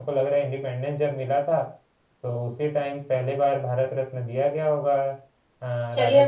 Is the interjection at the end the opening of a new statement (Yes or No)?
Yes